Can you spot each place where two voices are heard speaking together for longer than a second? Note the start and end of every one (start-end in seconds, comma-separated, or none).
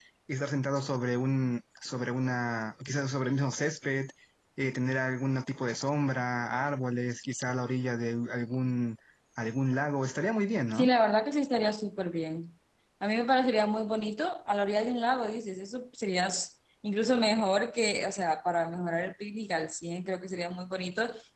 none